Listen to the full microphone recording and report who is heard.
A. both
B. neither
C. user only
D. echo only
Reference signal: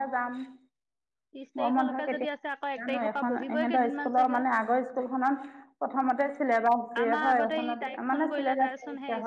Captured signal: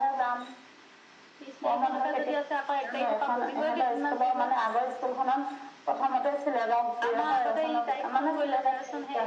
D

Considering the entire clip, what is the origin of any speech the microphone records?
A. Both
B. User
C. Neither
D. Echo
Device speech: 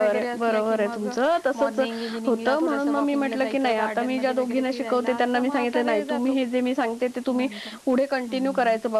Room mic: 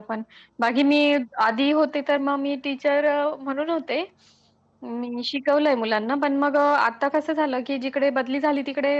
B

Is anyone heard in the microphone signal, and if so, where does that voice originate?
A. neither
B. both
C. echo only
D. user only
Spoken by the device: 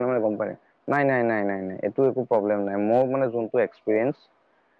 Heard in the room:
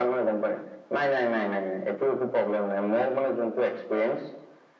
C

